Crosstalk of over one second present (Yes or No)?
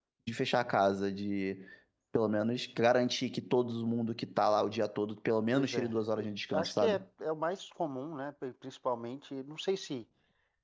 Yes